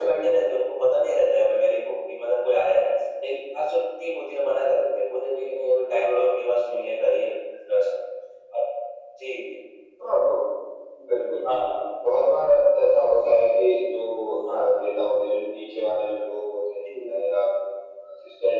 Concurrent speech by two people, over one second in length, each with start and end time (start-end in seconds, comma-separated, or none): none